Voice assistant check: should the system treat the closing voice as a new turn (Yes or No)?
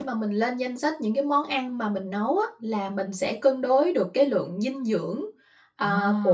No